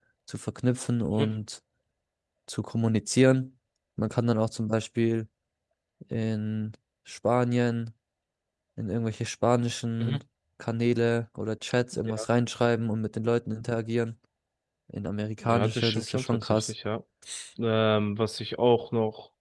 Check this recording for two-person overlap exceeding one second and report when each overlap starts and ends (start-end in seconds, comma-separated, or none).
15.4-16.7